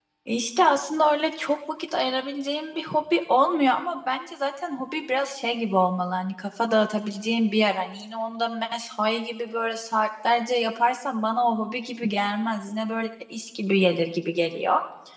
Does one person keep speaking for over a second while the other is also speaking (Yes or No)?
No